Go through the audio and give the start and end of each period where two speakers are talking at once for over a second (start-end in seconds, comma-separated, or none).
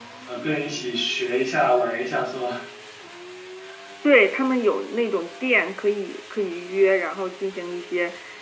none